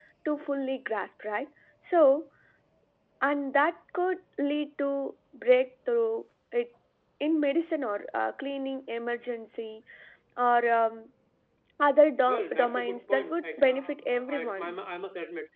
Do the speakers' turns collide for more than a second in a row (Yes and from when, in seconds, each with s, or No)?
Yes, from 12.3 s